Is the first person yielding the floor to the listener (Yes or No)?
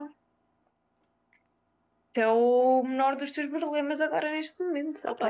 Yes